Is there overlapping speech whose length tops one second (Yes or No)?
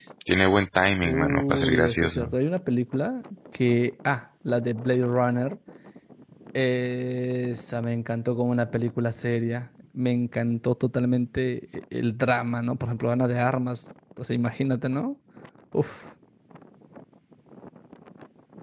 Yes